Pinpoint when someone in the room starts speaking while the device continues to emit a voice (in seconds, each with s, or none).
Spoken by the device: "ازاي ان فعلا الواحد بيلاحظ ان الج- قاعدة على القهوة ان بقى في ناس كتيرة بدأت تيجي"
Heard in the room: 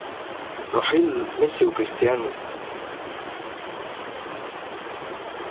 0.7 s